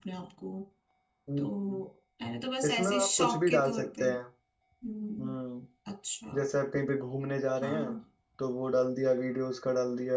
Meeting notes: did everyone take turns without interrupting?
No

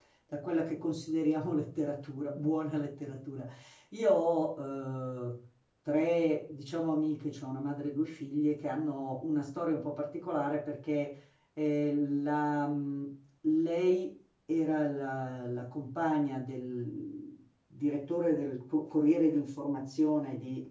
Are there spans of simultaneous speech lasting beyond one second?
No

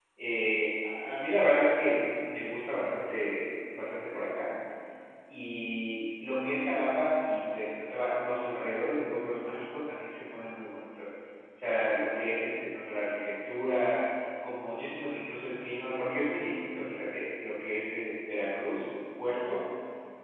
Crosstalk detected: No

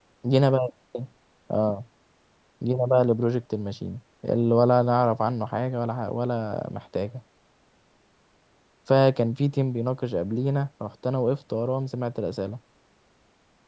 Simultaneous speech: No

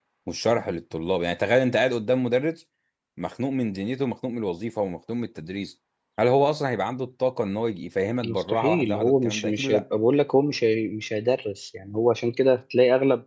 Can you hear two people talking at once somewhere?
Yes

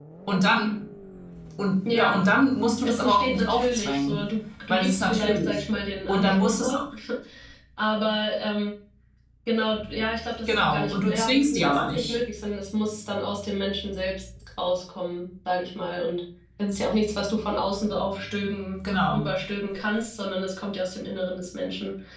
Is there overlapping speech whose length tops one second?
Yes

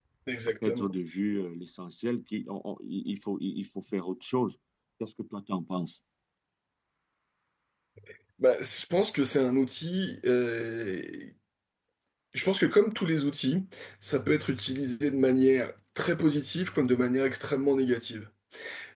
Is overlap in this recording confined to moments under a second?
Yes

